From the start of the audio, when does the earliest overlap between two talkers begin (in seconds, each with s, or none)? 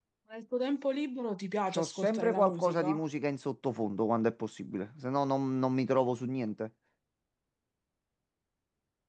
1.7 s